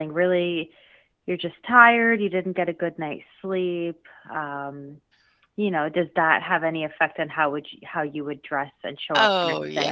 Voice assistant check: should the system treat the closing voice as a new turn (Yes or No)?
Yes